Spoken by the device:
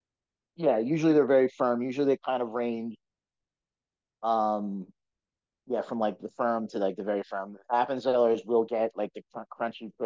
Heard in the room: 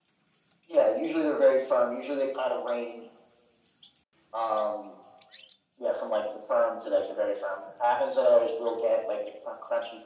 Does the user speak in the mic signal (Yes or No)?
No